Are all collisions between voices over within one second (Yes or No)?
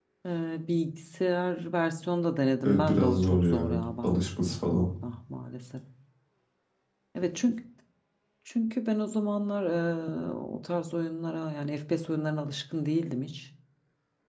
No